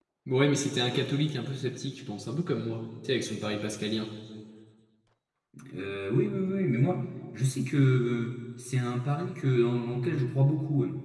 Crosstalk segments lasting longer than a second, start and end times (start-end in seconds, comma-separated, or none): none